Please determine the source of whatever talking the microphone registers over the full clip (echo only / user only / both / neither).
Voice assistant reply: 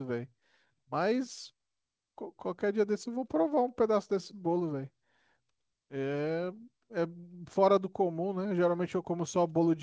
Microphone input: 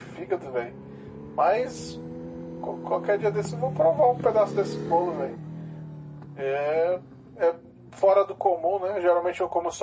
echo only